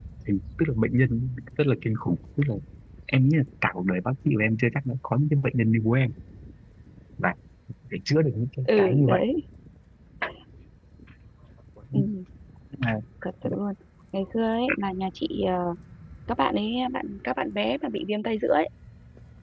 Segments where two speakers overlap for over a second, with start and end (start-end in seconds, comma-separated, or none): none